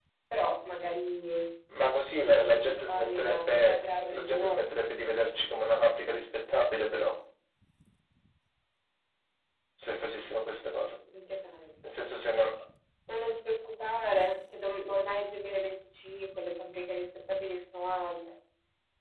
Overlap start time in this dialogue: 2.5 s

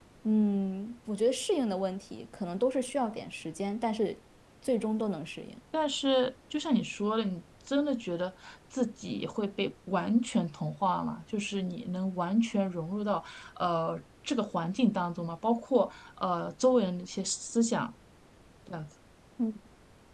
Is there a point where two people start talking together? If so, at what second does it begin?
none

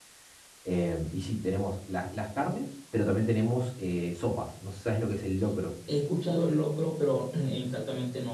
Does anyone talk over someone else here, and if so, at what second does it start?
none

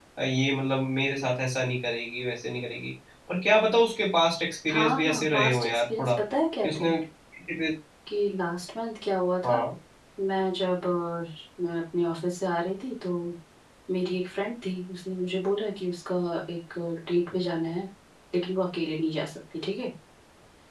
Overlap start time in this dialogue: 4.7 s

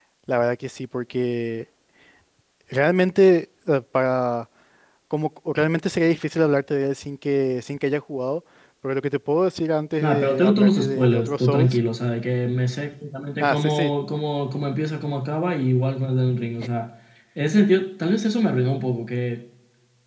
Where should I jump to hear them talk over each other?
10.0 s

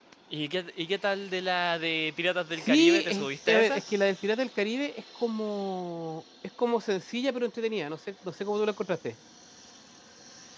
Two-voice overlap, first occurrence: 2.5 s

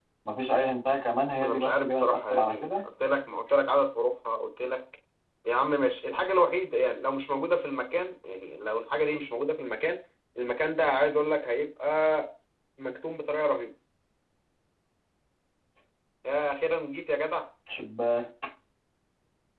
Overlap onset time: 1.3 s

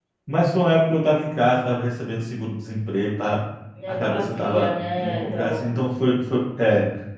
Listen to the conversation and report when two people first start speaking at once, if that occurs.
3.9 s

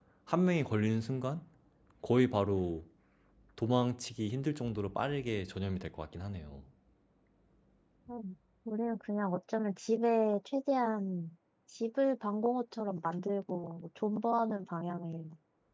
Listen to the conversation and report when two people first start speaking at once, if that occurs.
none

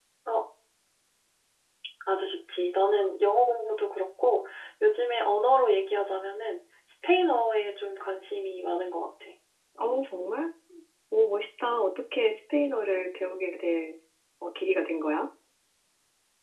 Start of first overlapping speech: none

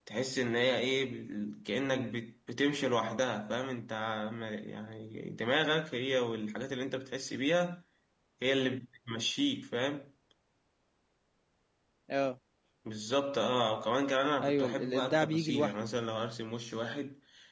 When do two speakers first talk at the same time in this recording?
14.4 s

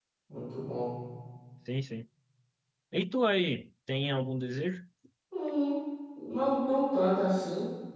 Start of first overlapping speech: none

